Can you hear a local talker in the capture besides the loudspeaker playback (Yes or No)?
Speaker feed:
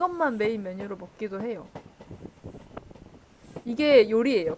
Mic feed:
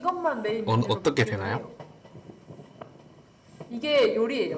Yes